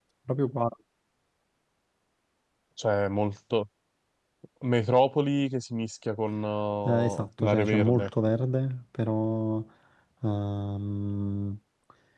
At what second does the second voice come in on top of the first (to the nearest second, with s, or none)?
7 s